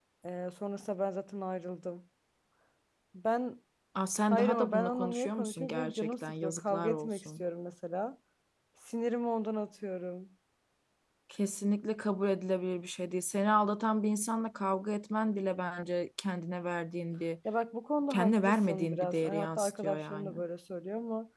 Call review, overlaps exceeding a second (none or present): present